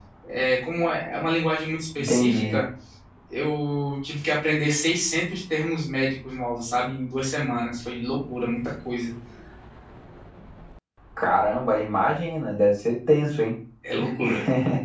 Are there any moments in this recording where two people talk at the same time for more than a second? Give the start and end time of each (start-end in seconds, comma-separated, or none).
none